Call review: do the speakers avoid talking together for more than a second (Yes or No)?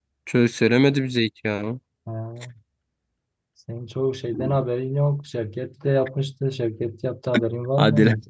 Yes